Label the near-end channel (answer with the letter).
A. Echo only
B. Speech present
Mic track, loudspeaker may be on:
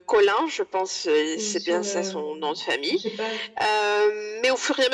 B